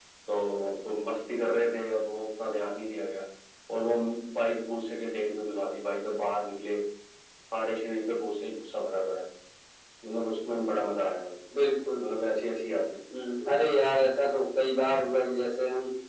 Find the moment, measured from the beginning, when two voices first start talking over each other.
none

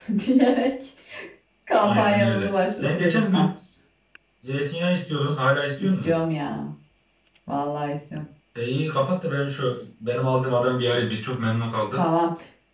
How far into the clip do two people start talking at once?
1.8 s

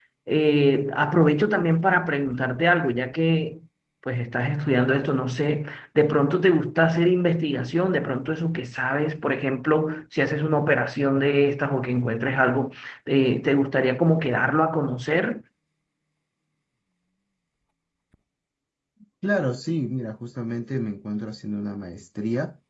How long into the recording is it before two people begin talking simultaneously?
none

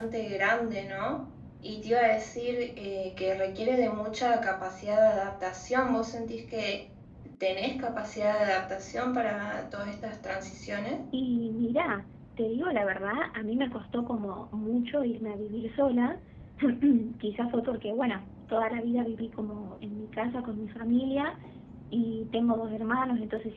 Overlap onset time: none

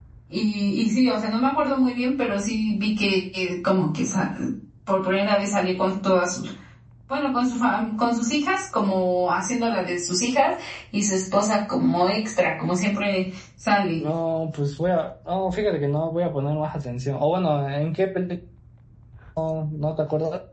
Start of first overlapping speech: none

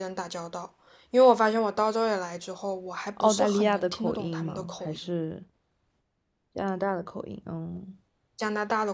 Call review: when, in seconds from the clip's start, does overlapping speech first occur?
3.2 s

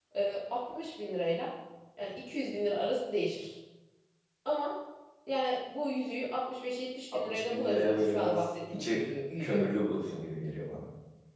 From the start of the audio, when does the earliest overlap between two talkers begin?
7.1 s

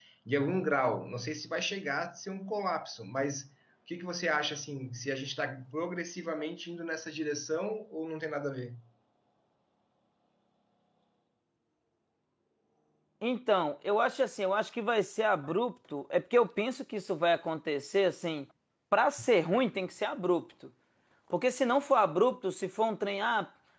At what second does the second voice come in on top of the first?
none

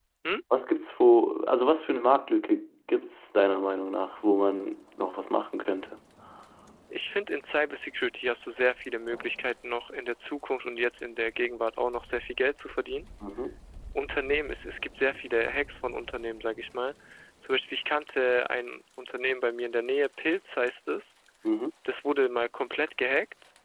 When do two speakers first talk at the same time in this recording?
none

